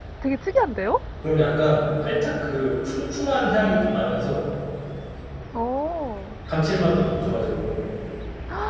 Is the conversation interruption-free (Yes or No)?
Yes